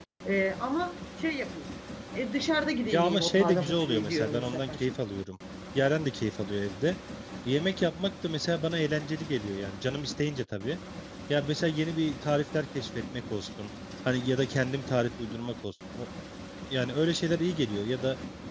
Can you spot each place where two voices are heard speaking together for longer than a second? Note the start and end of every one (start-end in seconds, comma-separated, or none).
2.9-4.8